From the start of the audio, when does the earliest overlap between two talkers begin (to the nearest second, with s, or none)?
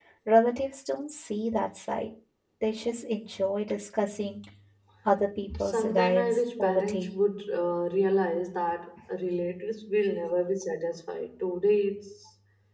6 s